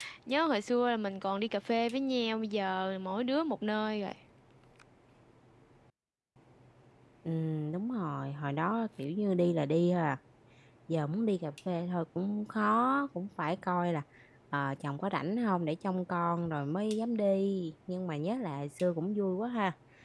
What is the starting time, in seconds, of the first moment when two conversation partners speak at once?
none

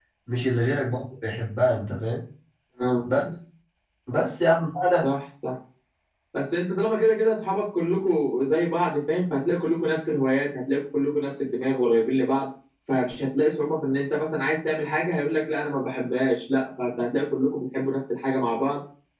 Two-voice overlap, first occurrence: none

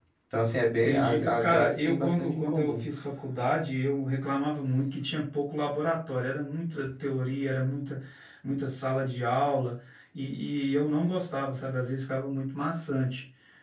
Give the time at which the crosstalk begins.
0.8 s

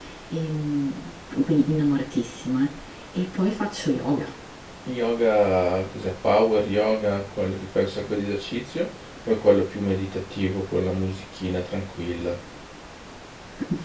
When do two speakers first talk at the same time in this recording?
none

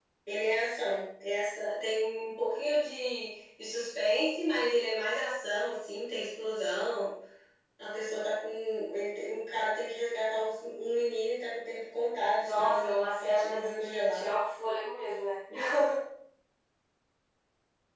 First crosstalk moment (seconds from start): 12.4 s

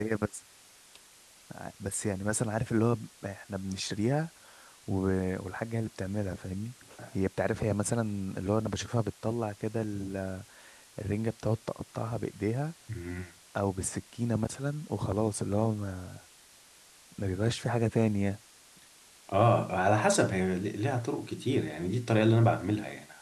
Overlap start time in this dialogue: none

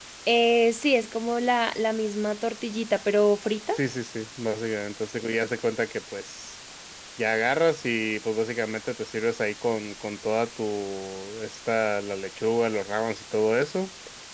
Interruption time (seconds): none

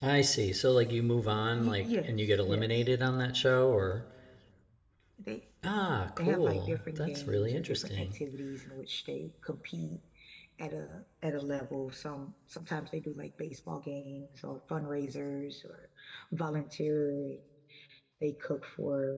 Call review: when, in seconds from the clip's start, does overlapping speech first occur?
1.5 s

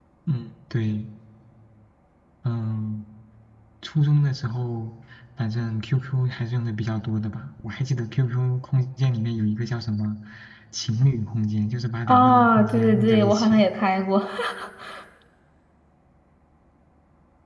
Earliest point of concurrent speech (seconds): 12.1 s

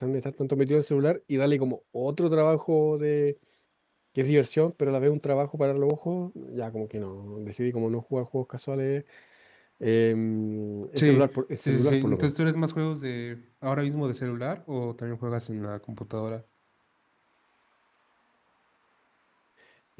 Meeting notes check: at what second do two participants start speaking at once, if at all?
11.0 s

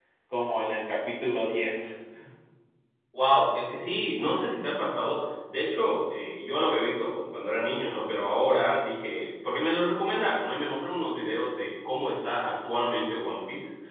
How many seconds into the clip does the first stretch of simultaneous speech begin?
none

